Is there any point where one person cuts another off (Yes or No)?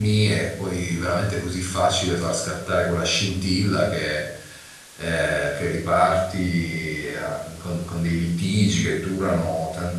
No